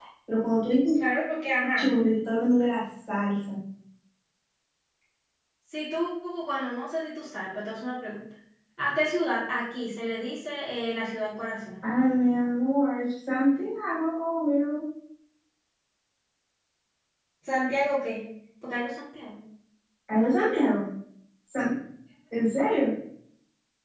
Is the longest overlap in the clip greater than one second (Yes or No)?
No